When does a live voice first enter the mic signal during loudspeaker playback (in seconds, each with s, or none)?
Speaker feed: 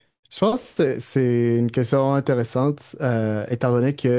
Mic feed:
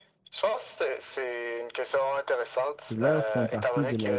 2.9 s